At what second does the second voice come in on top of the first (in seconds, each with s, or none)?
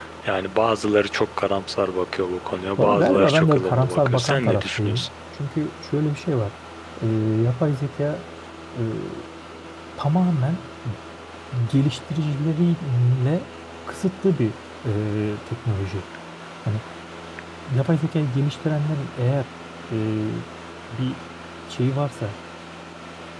2.8 s